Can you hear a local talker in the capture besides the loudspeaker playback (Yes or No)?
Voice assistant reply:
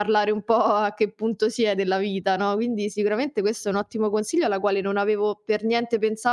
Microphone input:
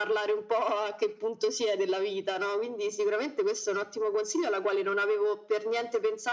No